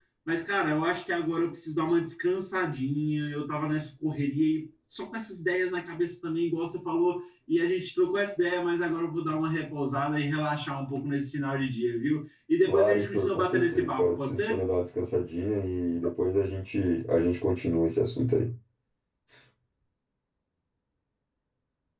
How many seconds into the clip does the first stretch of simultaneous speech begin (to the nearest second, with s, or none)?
13 s